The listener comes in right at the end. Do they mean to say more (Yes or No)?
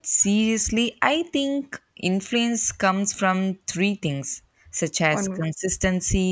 No